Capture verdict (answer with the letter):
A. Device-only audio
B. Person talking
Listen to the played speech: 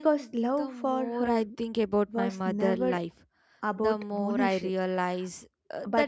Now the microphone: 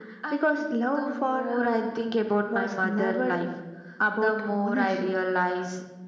A